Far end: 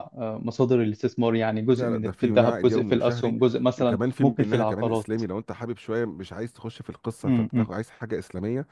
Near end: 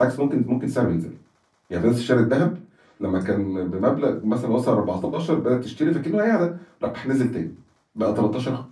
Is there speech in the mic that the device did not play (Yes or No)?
Yes